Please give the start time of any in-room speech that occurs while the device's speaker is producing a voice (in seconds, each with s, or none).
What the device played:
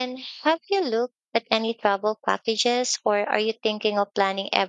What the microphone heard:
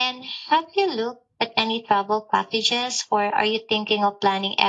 none